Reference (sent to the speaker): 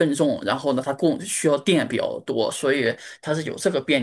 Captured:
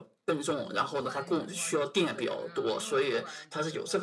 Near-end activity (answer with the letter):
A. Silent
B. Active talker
B